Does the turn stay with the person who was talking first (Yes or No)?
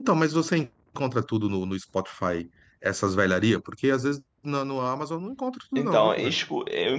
No